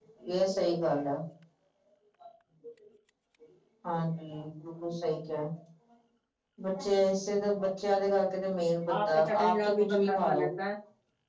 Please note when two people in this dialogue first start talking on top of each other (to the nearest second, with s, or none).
9 s